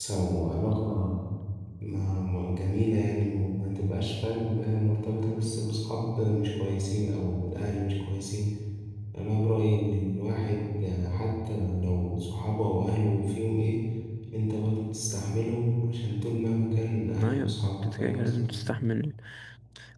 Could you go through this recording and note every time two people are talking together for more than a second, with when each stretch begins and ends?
17.2-18.5

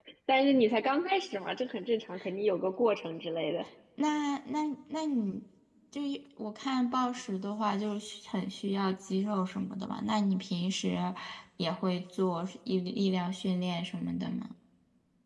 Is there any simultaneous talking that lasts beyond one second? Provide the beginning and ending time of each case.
none

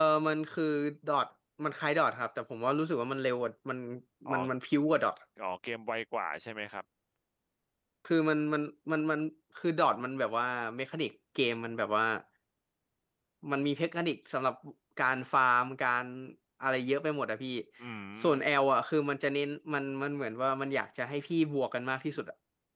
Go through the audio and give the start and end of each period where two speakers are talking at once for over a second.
none

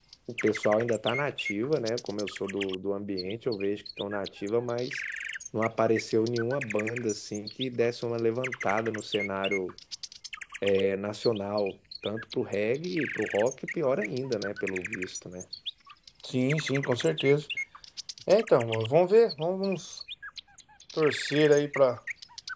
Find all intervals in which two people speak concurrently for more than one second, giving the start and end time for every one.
none

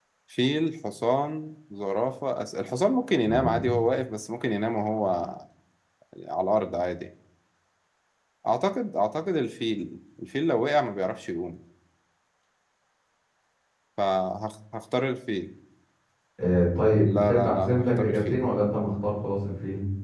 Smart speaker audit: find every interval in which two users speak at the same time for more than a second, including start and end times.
17.1-18.4

